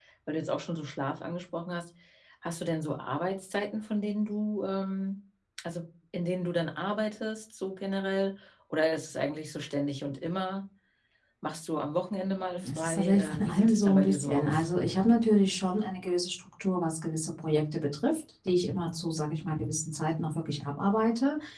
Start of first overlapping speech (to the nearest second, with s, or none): 12 s